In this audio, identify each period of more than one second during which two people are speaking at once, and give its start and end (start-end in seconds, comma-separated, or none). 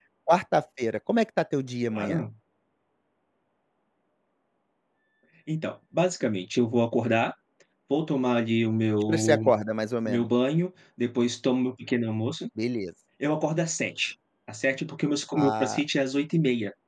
none